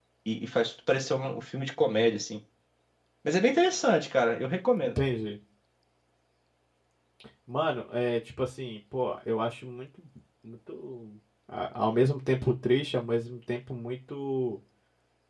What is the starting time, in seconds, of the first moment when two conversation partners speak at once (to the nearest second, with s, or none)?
none